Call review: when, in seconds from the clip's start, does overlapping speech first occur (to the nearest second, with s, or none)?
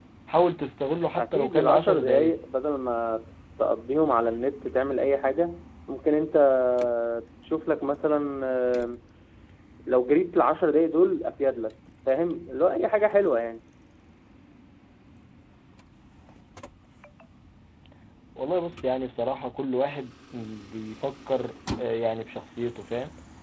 1 s